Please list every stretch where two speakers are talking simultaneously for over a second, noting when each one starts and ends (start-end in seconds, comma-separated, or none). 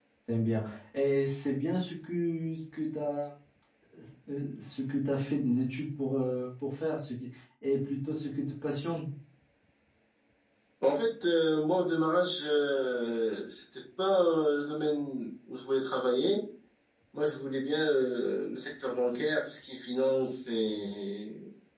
none